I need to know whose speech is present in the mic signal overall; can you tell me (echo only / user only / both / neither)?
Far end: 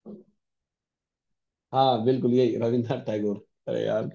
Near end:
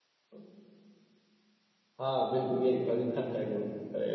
echo only